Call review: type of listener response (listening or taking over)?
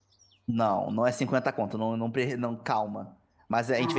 listening